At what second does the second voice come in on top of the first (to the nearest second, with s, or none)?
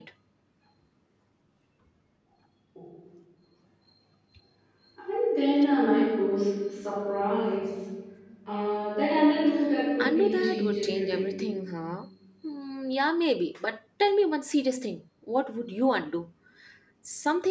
10 s